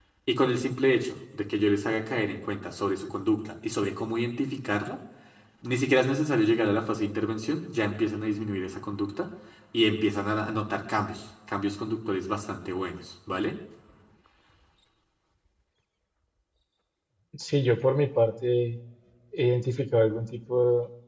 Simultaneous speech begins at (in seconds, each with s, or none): none